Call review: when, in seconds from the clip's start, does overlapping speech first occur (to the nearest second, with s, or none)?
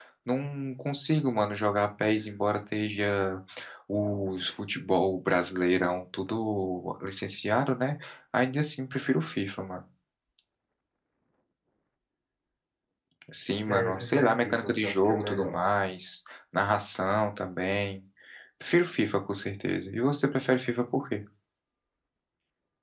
14 s